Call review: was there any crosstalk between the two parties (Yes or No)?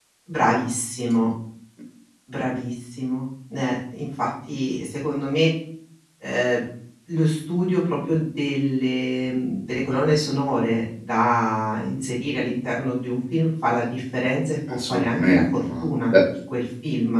Yes